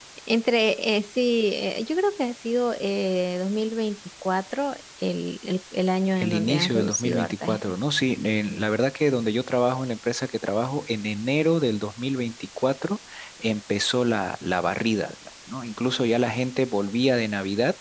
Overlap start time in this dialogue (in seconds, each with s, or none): 6.2 s